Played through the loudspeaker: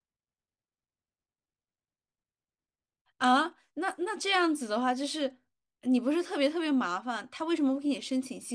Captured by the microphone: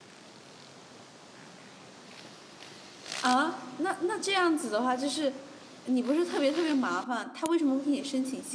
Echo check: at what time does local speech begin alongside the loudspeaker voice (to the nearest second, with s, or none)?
none